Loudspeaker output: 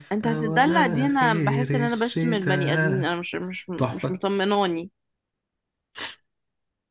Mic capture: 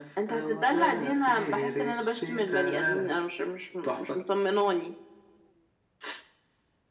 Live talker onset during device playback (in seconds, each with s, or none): none